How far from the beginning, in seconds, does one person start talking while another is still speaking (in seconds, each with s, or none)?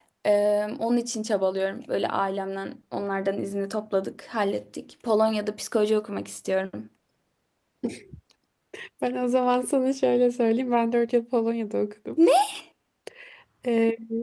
none